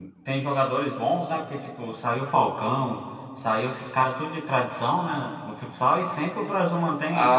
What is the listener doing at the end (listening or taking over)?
taking over